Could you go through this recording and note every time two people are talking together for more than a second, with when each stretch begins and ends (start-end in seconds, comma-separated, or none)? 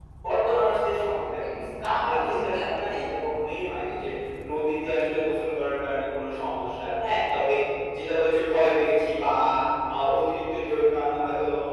1.3-2.6